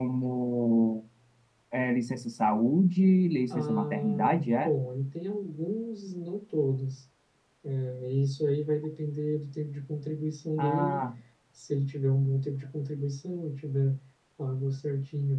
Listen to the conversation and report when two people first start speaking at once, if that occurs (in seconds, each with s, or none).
3.5 s